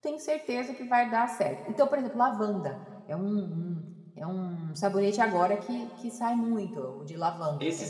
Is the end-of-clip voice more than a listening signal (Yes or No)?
Yes